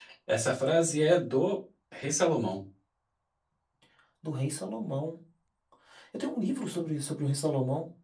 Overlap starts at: none

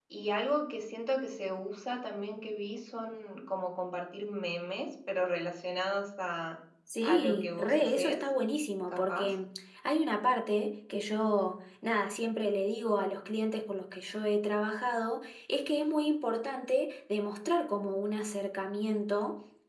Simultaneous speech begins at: 7 s

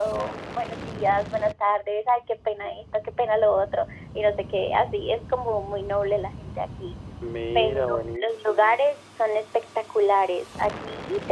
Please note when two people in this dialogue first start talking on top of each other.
8 s

